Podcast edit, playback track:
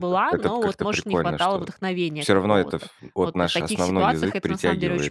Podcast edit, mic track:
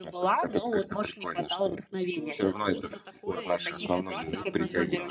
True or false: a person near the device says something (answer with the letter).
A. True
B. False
A